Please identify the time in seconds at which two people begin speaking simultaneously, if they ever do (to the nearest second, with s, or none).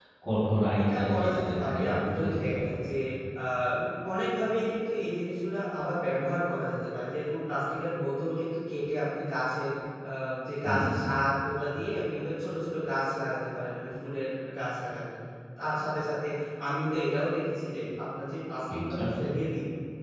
1 s